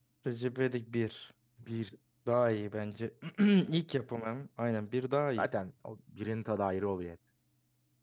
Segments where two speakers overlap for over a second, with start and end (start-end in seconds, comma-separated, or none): none